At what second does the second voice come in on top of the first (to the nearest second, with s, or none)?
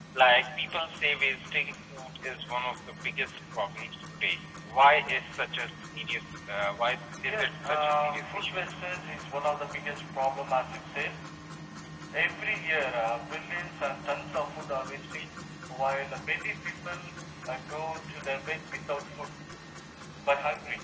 7 s